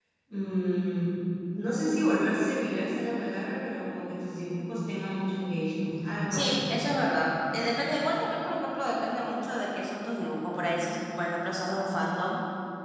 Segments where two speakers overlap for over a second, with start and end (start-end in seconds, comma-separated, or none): none